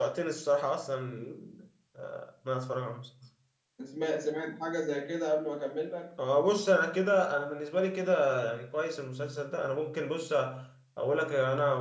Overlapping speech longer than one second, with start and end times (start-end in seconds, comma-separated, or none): none